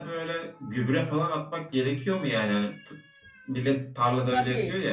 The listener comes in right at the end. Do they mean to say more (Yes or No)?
Yes